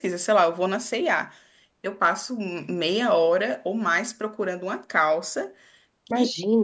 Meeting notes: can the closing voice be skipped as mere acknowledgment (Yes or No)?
Yes